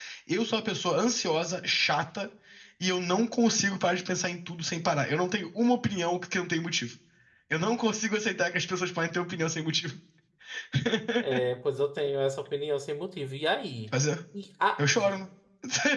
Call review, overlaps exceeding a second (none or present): none